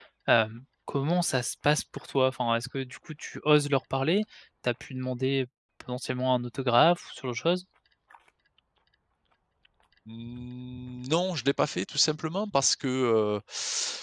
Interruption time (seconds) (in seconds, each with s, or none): none